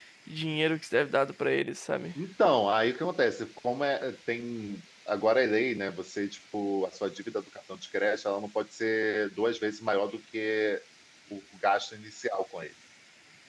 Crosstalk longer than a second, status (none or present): none